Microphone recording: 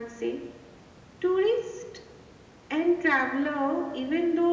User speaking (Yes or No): No